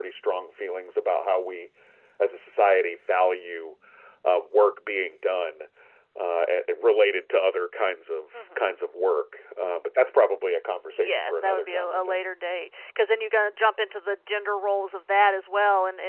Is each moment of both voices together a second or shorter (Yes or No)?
No